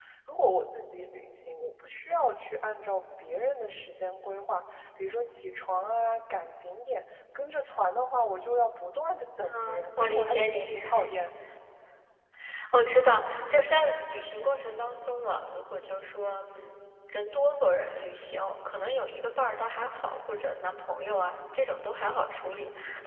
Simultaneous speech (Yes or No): Yes